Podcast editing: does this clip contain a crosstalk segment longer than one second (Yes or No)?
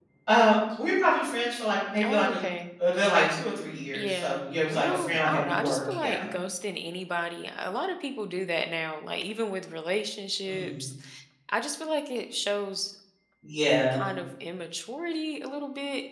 Yes